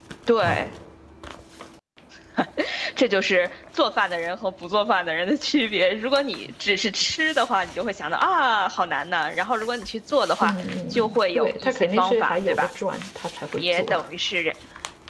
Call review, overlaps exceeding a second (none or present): present